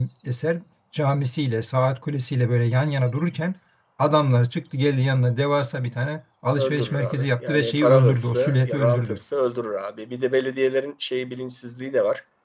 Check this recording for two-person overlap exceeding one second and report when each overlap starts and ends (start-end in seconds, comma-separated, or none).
6.6-9.2